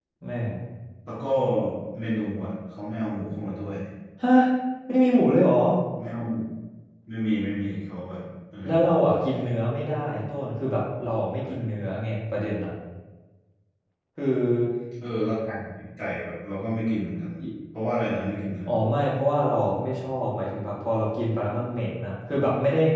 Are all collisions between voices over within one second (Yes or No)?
Yes